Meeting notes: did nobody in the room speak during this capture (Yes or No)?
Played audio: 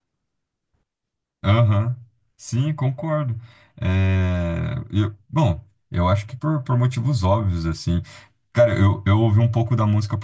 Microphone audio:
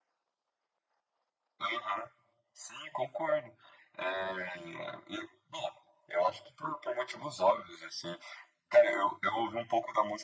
Yes